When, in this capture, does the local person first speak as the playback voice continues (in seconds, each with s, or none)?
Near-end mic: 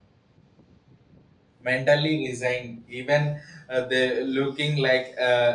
1.6 s